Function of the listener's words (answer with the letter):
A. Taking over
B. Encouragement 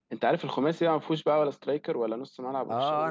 A